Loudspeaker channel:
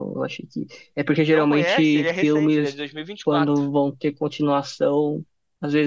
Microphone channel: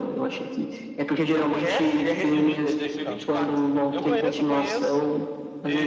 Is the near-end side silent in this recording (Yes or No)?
No